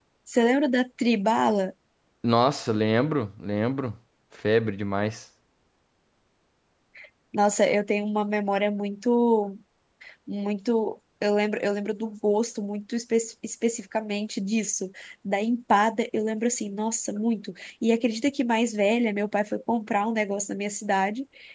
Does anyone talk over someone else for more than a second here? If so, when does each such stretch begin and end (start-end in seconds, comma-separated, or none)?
none